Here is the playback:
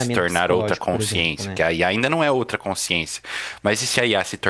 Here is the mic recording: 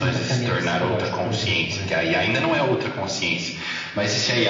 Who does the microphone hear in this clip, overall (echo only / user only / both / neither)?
echo only